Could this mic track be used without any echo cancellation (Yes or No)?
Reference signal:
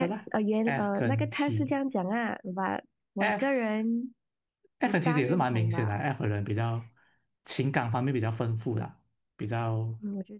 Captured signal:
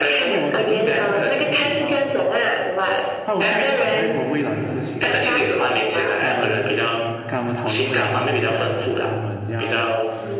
No